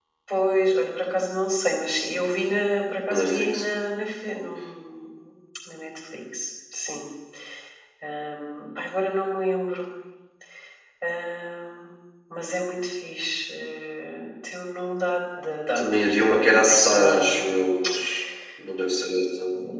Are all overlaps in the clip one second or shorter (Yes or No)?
No